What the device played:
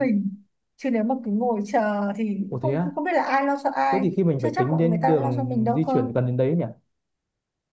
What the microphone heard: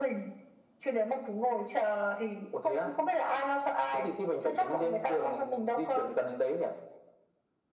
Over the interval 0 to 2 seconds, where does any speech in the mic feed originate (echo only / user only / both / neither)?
echo only